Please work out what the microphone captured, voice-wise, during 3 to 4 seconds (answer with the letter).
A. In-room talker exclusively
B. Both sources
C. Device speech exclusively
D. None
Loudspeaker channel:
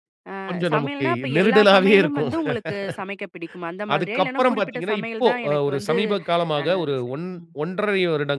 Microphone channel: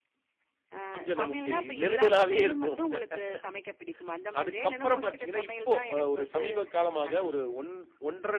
C